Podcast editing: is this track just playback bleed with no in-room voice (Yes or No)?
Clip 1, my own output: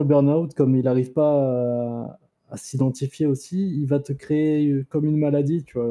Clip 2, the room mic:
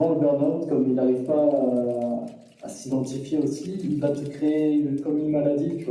Yes